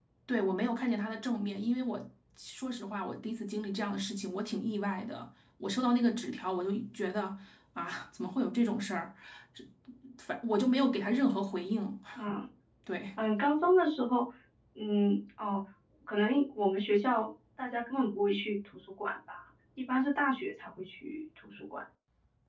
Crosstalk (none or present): none